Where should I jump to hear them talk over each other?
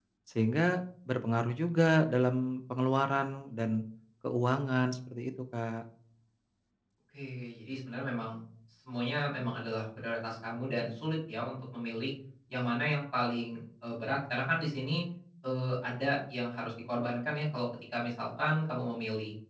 none

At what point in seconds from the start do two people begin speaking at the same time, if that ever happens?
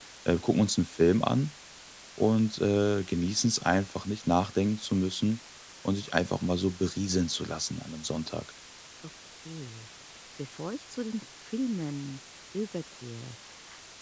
none

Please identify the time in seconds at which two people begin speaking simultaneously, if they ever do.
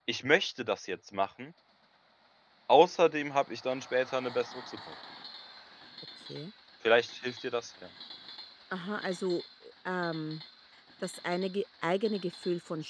none

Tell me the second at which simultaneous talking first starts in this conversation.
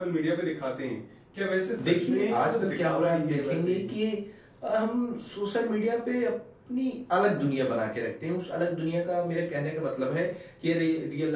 1.8 s

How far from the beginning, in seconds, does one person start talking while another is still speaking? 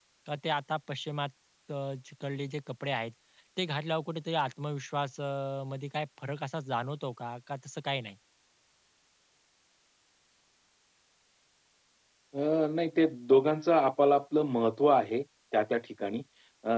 none

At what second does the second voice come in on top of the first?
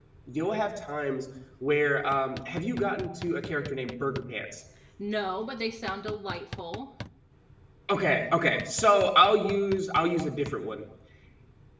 none

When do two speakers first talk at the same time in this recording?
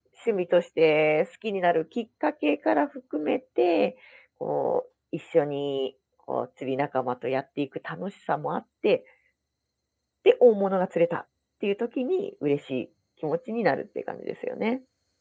none

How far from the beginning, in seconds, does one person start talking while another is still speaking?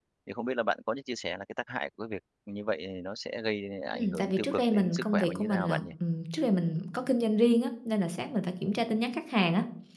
3.9 s

